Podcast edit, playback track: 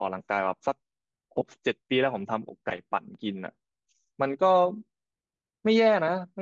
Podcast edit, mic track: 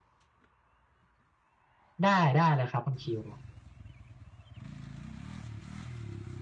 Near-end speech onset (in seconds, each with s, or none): 2.0 s